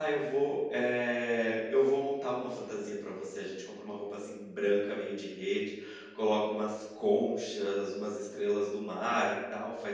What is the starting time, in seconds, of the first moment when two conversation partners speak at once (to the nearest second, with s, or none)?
none